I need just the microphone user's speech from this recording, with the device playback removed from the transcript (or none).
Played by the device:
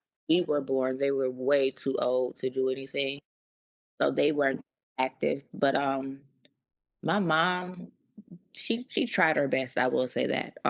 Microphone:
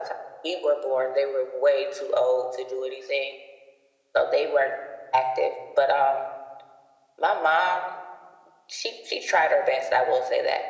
none